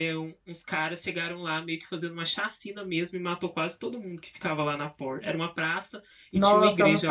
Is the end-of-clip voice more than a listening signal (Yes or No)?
Yes